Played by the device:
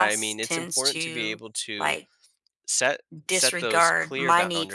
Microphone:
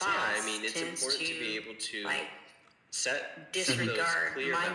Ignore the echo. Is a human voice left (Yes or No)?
Yes